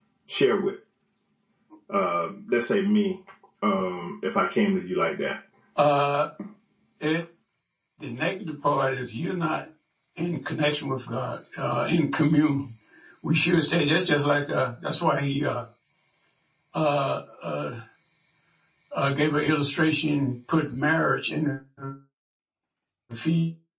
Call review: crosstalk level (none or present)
none